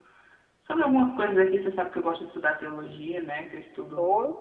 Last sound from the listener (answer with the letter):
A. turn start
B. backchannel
A